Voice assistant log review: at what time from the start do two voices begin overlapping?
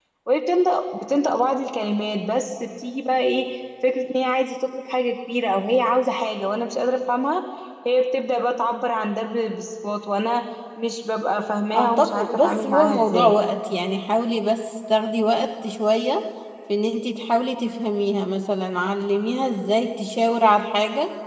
12 s

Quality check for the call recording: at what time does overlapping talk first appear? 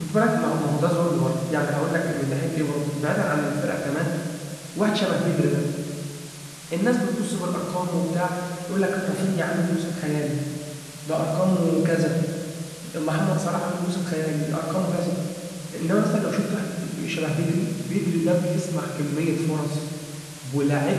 none

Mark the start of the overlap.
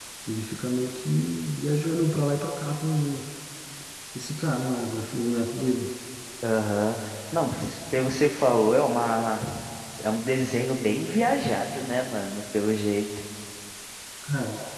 none

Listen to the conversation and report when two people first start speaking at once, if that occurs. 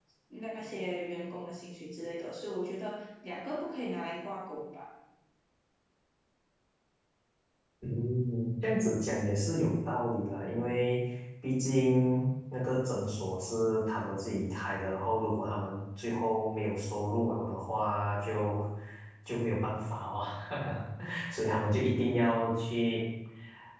none

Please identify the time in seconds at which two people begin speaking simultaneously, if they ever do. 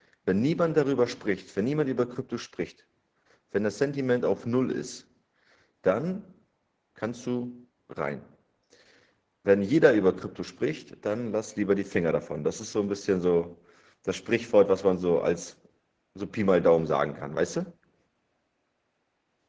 none

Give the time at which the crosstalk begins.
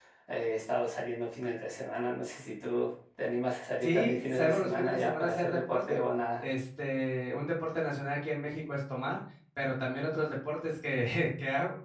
4 s

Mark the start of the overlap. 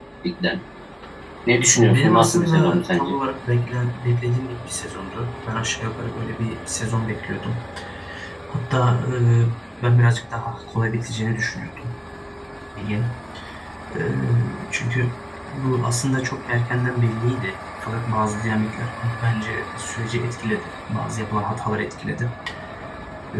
2 s

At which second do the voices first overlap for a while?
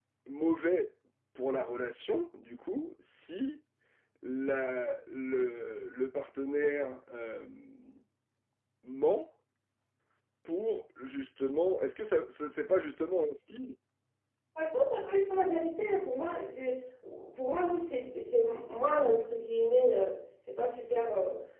none

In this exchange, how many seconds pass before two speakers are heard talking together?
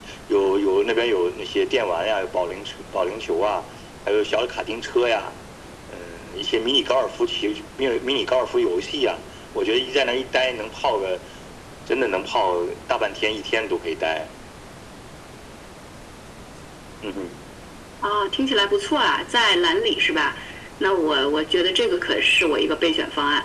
none

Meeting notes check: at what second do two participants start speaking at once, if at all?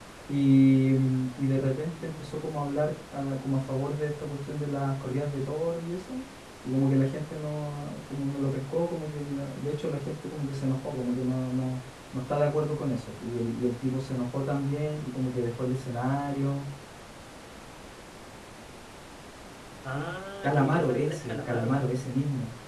20 s

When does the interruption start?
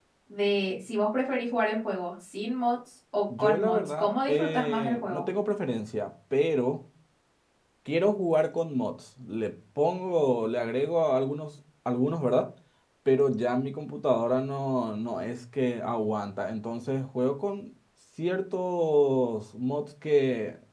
3 s

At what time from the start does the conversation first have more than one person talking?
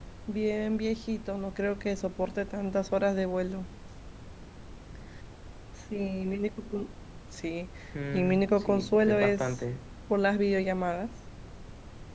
8 s

